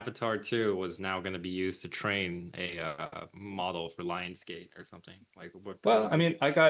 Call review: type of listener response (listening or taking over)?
taking over